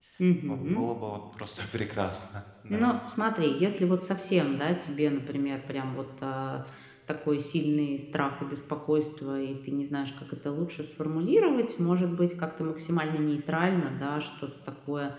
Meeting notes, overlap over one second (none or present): none